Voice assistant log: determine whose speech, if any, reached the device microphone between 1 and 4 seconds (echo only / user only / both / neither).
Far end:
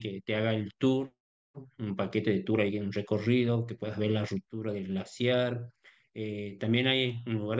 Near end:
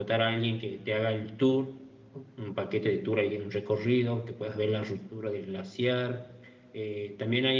echo only